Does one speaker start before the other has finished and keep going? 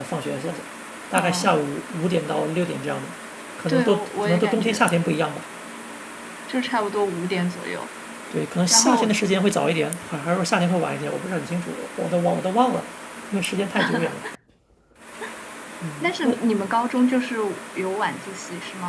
Yes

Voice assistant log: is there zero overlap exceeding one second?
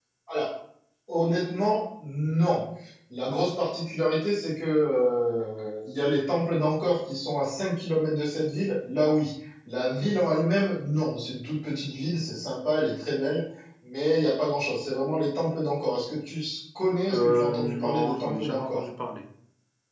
No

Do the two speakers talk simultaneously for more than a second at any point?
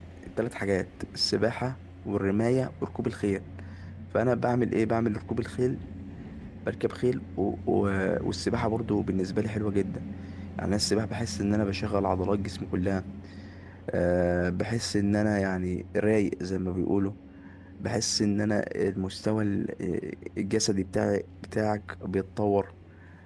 No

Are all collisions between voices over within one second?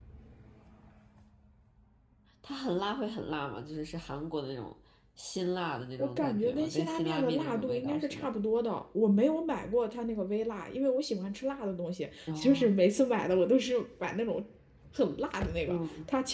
No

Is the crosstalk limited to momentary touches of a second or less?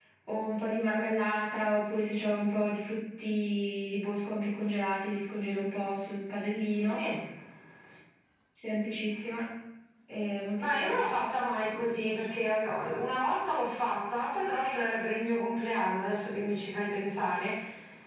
Yes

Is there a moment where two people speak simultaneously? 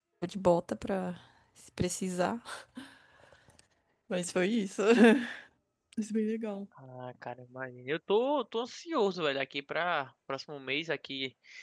No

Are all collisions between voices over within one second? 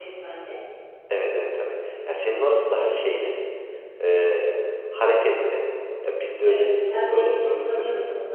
No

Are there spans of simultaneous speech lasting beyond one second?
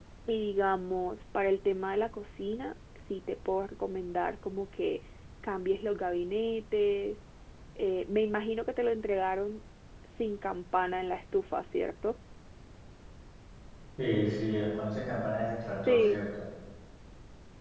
No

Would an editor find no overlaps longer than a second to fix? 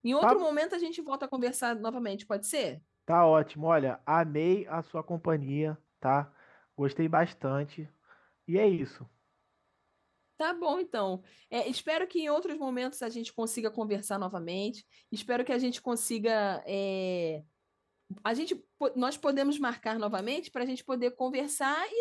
Yes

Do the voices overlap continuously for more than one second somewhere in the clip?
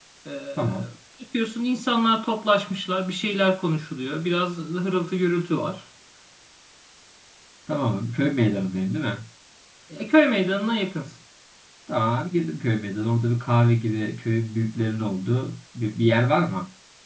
No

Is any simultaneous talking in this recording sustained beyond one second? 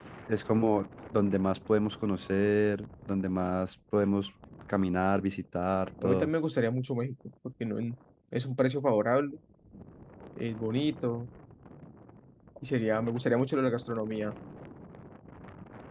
No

